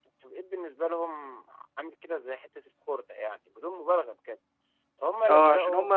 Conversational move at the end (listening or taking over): taking over